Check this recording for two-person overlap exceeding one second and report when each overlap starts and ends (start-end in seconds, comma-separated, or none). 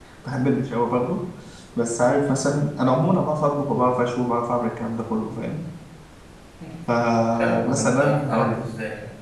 7.2-8.6